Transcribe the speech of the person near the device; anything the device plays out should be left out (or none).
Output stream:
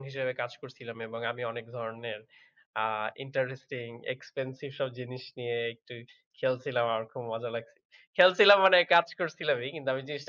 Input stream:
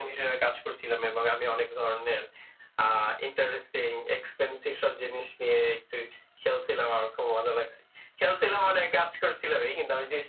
none